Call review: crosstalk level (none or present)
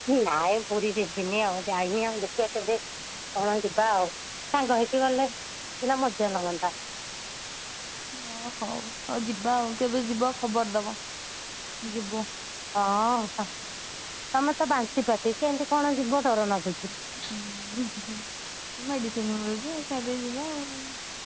none